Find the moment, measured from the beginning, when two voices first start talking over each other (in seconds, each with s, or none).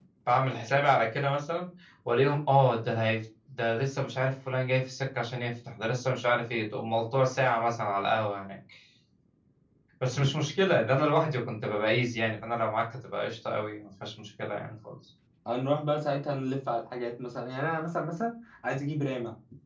none